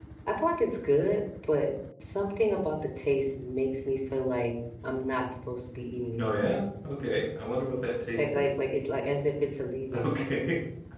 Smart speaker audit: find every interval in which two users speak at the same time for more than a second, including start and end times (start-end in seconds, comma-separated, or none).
none